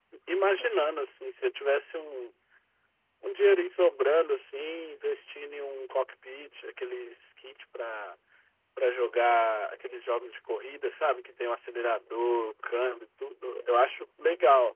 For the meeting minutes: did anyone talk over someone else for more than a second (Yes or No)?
No